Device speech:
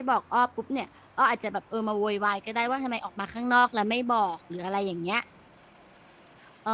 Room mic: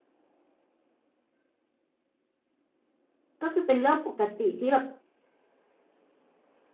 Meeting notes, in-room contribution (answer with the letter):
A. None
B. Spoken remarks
B